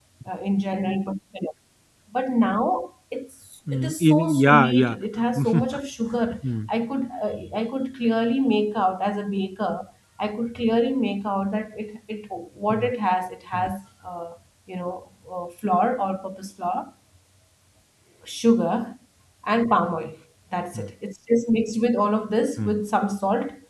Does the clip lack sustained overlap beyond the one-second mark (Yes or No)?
No